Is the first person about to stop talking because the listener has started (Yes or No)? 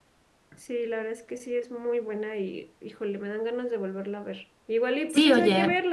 Yes